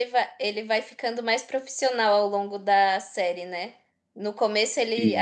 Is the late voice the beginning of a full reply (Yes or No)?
No